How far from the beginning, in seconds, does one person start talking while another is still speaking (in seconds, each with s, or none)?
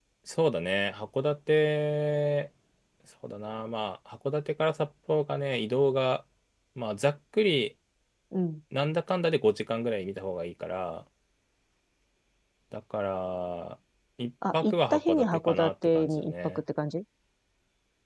14.5 s